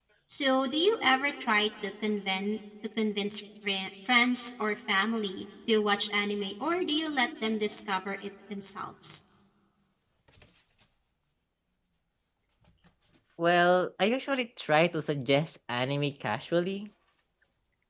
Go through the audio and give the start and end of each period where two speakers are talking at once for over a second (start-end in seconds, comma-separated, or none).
none